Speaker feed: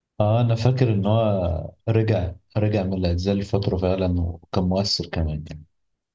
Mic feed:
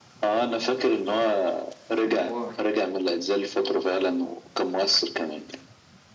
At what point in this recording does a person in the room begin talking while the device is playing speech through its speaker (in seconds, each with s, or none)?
2.0 s